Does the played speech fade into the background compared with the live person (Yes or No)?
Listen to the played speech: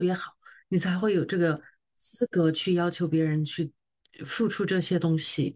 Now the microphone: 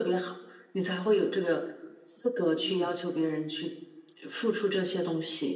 No